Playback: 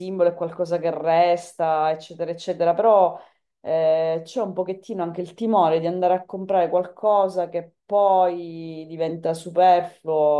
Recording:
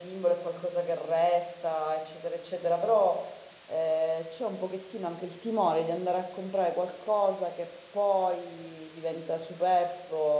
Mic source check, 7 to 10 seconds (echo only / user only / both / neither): echo only